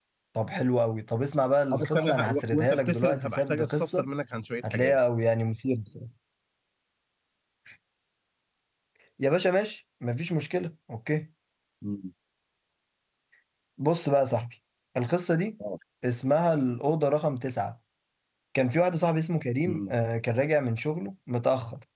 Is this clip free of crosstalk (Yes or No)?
No